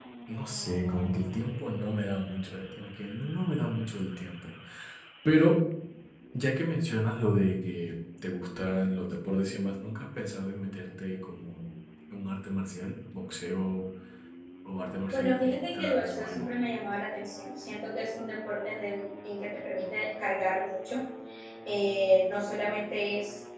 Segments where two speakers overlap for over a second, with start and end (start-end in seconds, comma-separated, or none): 15.1-16.4